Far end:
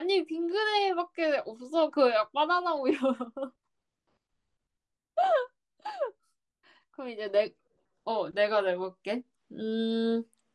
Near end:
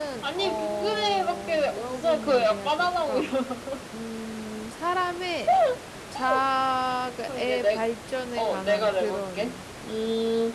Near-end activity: present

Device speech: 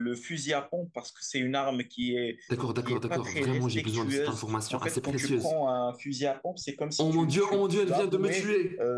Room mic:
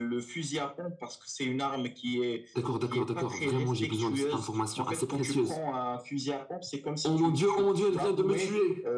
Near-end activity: none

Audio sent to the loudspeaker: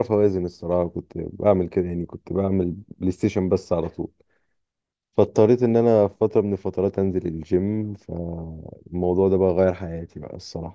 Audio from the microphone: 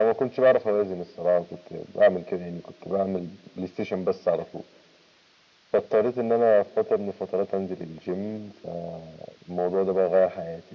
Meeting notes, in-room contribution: none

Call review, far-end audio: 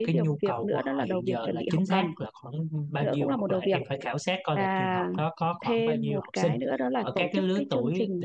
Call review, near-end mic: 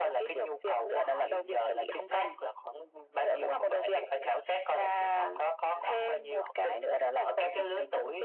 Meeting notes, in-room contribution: present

